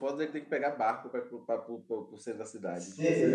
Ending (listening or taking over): taking over